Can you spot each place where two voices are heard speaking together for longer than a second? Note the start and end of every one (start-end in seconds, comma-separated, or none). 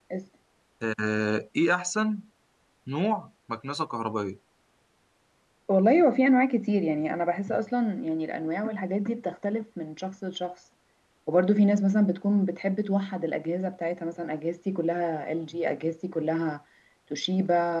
none